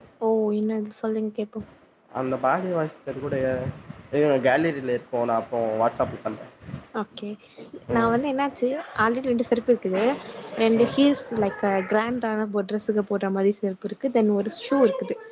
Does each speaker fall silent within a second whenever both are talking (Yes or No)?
Yes